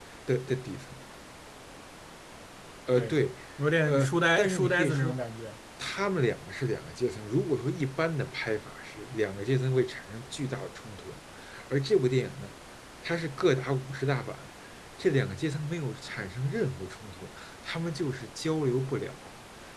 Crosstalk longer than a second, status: present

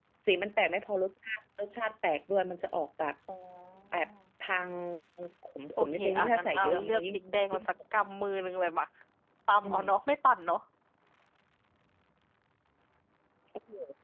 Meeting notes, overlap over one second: present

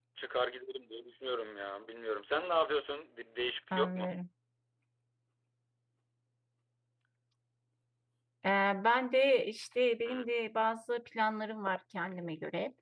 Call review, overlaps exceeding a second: none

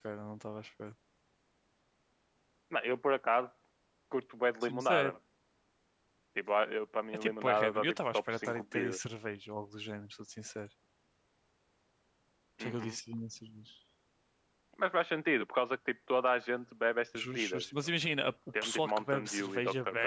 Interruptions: present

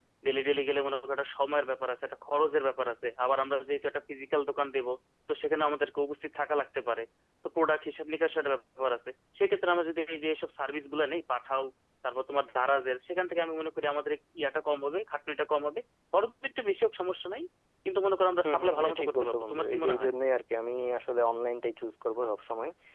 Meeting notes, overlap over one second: present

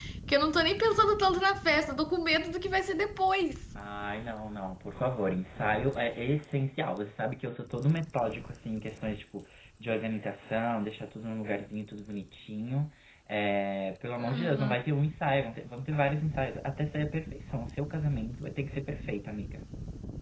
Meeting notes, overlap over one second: none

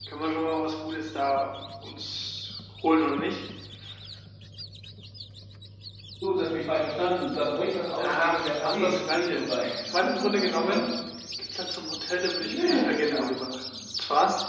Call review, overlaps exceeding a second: present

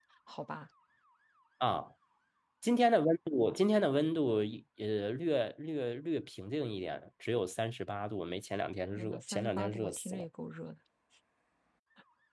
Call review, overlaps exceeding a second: present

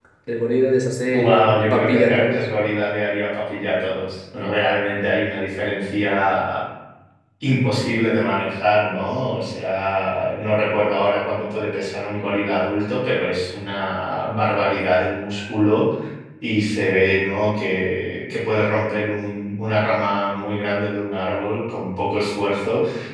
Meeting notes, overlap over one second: present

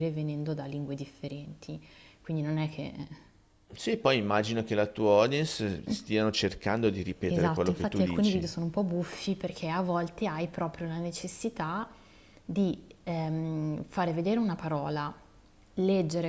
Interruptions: present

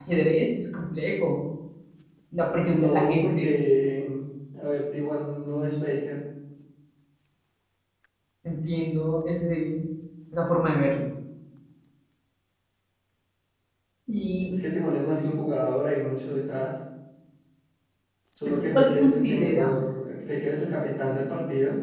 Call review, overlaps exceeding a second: present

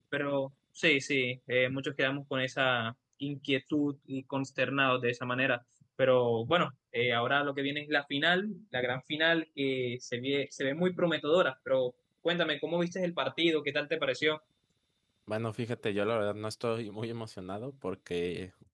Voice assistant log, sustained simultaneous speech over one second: none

